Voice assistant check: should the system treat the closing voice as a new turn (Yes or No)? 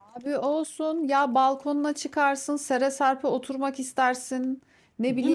No